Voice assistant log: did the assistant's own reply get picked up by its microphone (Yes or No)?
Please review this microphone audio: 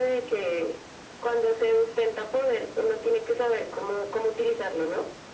Yes